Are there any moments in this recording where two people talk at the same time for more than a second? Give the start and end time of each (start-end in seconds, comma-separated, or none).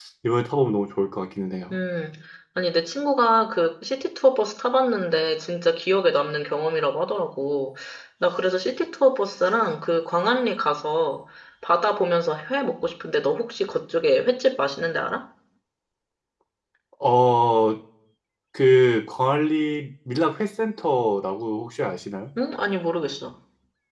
none